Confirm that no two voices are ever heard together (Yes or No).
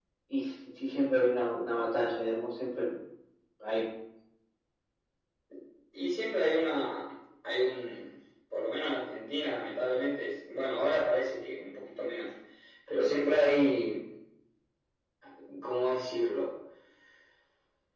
Yes